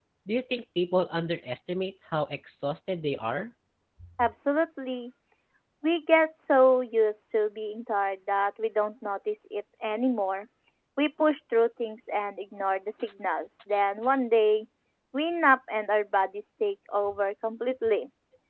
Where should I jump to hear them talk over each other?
none

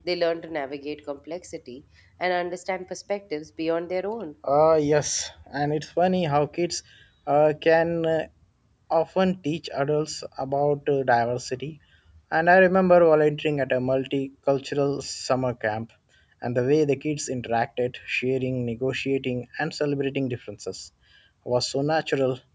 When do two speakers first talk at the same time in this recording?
none

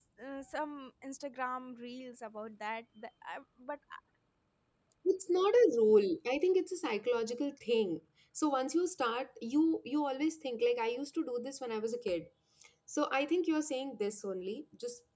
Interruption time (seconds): none

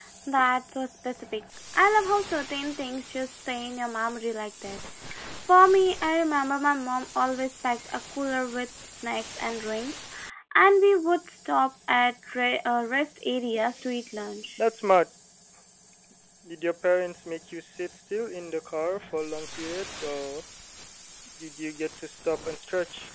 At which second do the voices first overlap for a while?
none

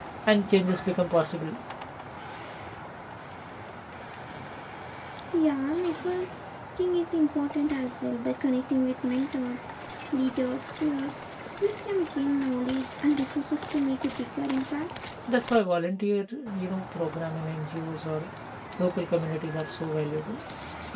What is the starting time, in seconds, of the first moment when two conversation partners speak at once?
none

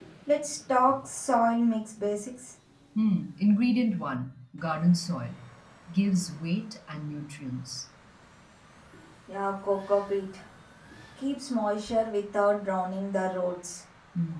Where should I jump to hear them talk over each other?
none

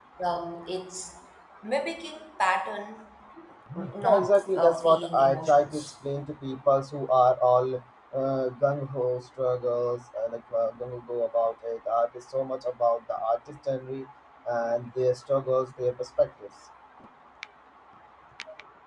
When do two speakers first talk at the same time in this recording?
4 s

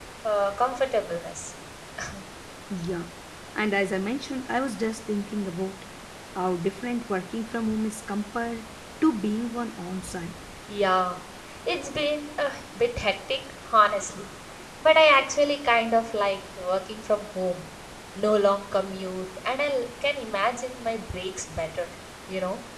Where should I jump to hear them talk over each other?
none

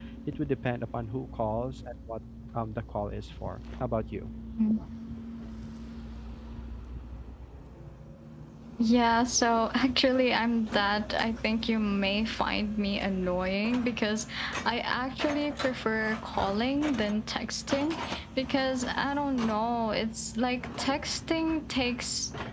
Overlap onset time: none

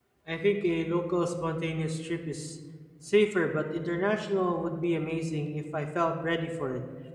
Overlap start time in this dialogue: none

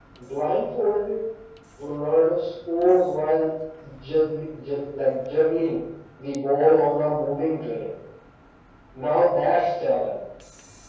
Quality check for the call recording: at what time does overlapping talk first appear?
none

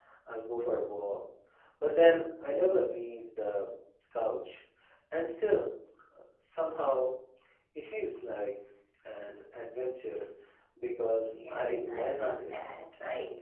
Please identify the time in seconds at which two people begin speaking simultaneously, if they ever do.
11 s

